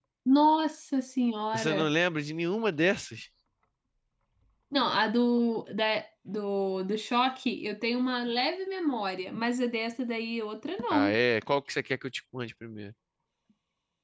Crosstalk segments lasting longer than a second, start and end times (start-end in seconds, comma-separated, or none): none